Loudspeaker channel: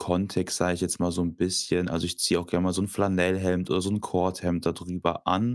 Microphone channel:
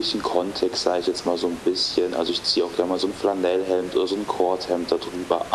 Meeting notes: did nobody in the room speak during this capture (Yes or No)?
Yes